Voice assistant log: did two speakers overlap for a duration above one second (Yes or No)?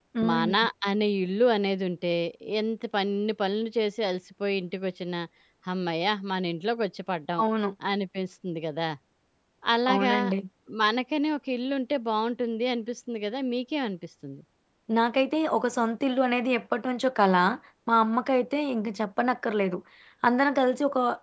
No